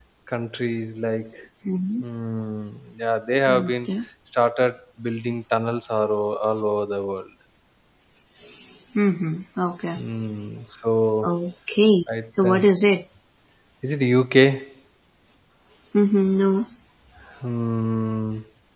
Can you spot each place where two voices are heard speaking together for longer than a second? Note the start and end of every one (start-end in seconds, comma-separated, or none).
none